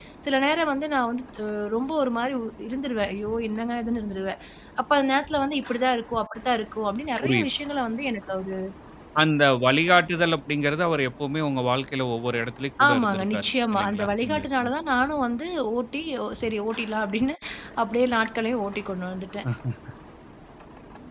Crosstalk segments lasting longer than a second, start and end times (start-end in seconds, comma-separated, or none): 12.9-14.7